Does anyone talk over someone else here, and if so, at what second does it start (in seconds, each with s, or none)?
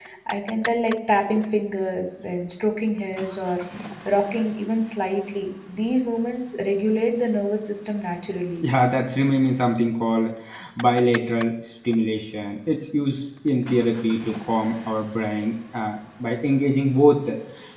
none